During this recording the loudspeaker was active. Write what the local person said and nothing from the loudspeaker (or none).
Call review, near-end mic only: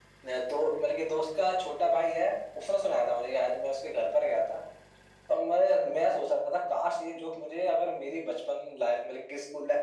none